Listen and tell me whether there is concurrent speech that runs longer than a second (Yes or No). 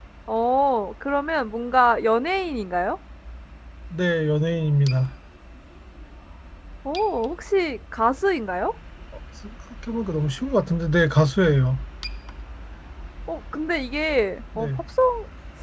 No